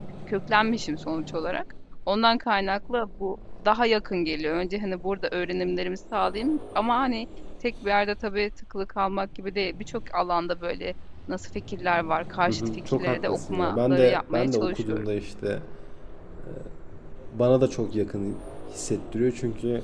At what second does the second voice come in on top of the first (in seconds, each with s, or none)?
12.5 s